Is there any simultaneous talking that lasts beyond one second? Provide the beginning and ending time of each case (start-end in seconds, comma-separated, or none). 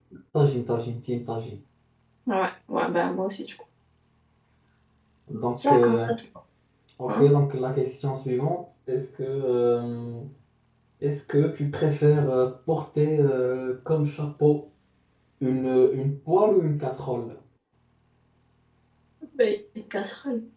none